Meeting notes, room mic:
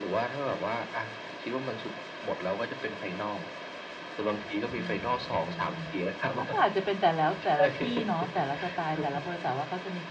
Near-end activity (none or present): present